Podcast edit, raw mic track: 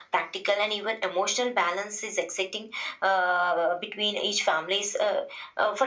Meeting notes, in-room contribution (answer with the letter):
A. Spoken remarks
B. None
B